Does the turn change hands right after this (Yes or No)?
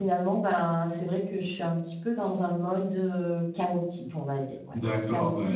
Yes